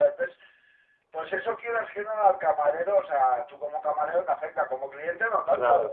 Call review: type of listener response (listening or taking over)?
taking over